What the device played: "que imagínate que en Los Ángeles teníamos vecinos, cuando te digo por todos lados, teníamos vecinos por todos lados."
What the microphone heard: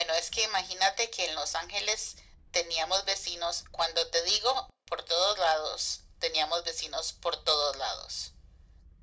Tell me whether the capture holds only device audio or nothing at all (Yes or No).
Yes